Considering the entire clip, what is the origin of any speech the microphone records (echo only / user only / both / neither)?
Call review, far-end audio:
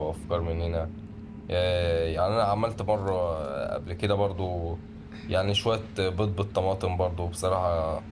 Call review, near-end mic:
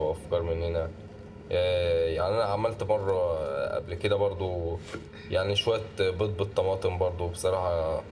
echo only